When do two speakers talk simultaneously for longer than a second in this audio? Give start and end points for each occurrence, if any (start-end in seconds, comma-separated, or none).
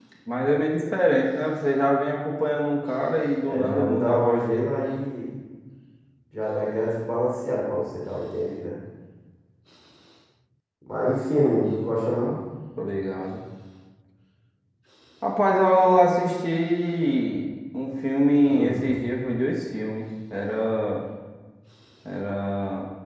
3.5-4.7